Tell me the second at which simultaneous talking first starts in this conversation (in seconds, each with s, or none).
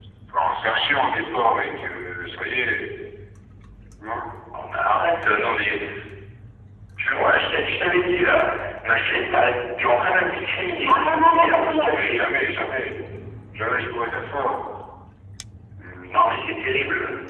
10.8 s